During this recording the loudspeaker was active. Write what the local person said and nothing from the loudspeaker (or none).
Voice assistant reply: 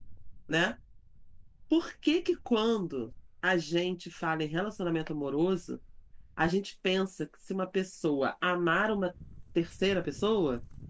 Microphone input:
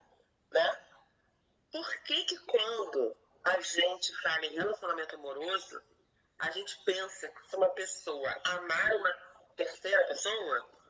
none